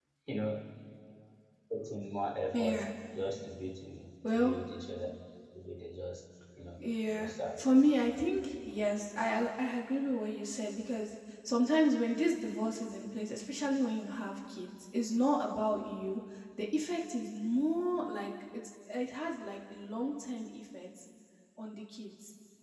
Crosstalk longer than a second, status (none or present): none